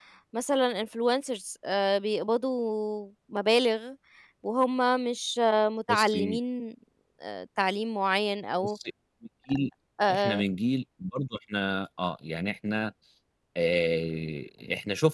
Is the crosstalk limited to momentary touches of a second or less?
Yes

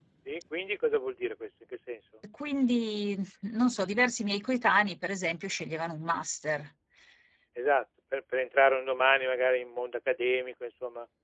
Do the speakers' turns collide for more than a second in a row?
No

